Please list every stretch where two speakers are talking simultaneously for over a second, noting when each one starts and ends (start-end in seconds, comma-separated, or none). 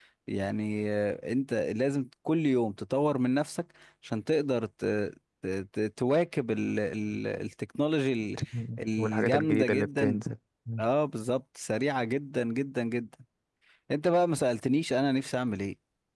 9.0-10.2